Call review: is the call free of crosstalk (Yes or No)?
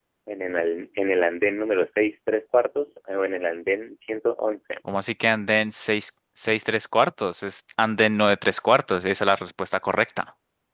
Yes